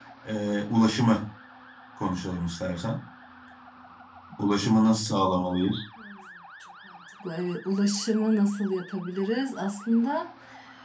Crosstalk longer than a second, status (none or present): none